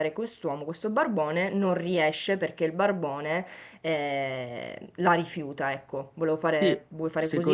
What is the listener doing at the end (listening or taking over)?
taking over